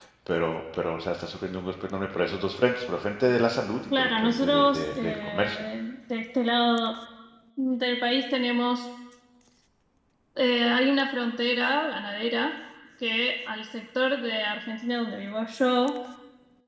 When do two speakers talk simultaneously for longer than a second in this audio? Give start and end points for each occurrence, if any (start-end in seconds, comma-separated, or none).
4.0-5.7